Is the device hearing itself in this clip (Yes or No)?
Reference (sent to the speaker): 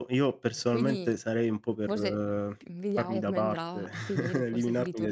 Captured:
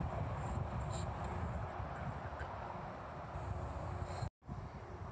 No